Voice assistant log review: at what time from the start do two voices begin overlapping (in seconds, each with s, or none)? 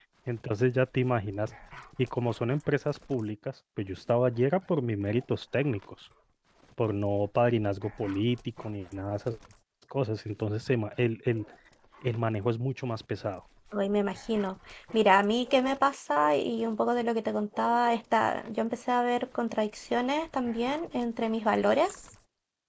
none